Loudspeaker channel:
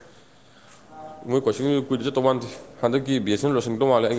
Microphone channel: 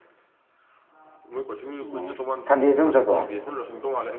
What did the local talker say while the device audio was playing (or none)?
ꯎꯝ ꯁꯟꯗꯦꯁꯨ ꯑꯗꯨꯨꯝ ꯆꯠꯄ꯭ꯔꯣ